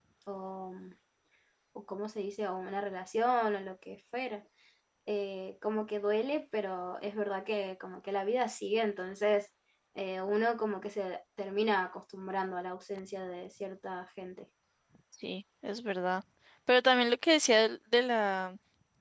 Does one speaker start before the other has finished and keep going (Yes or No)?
No